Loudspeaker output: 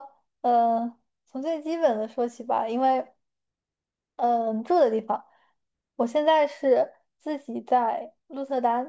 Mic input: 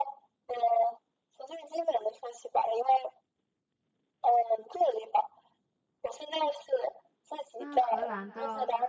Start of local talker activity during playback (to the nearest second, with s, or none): 8 s